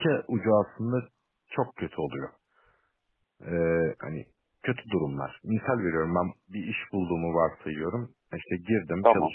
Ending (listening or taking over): listening